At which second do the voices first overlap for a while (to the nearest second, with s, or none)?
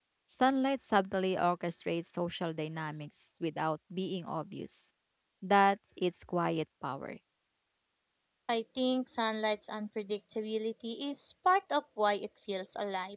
none